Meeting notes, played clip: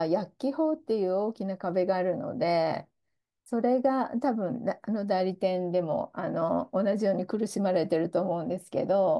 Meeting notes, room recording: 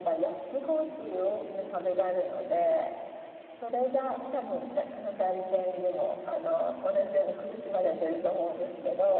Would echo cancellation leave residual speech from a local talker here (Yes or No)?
No